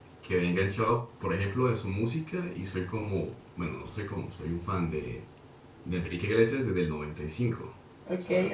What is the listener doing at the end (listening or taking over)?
taking over